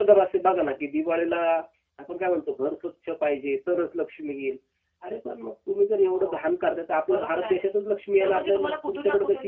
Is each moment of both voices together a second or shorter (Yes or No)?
No